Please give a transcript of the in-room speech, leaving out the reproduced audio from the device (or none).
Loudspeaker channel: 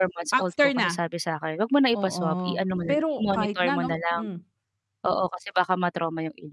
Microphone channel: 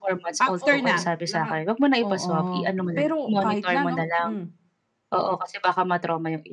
Oo, lahat.